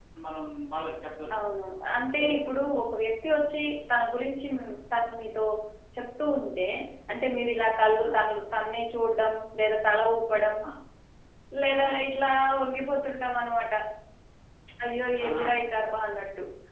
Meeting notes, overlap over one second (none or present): none